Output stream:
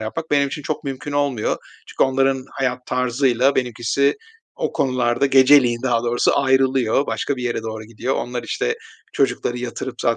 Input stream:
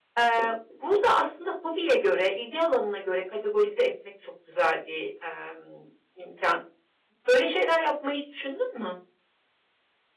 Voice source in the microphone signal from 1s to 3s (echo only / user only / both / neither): user only